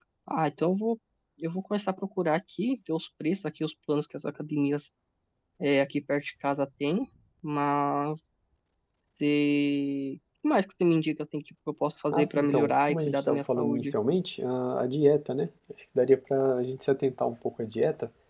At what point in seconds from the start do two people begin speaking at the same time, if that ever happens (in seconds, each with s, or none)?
12.1 s